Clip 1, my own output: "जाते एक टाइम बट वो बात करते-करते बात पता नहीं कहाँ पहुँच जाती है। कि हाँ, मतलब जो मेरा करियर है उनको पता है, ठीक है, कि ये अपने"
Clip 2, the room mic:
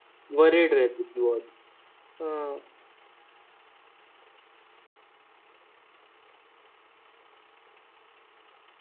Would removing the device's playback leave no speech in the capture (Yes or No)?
No